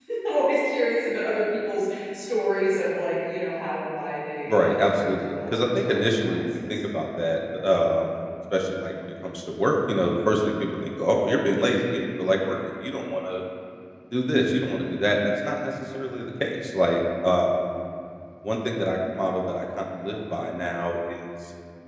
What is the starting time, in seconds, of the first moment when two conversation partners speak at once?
4.5 s

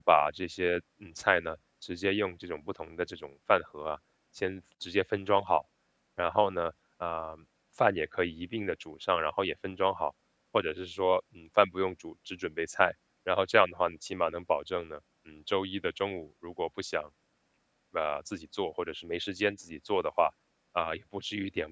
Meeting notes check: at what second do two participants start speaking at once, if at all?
none

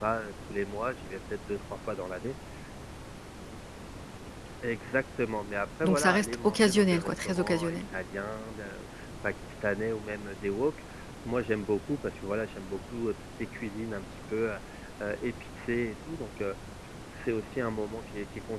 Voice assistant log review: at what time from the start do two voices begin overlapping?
5.8 s

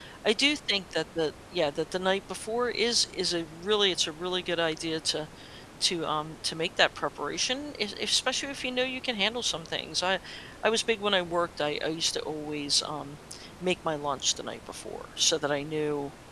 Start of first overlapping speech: none

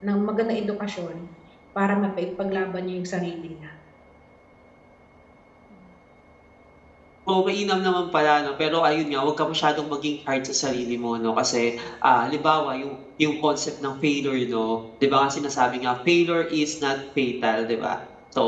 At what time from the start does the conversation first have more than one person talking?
none

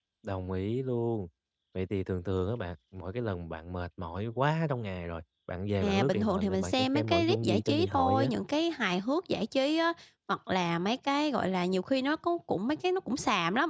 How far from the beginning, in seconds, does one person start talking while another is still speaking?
5.8 s

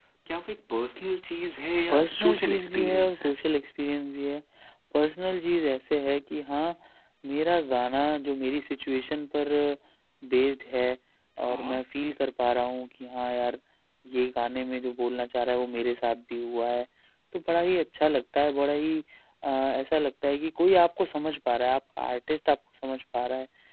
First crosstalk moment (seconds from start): 1.9 s

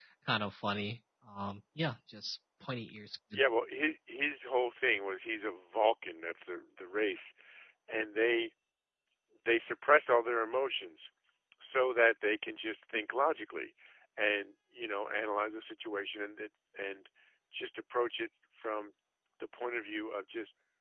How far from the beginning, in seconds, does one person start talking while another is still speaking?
none

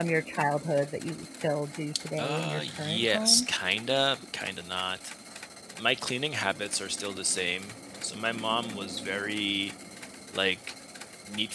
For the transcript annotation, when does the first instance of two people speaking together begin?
1.9 s

